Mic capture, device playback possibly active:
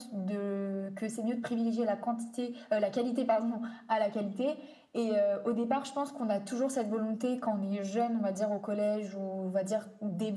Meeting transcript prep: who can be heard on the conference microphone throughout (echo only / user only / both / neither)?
echo only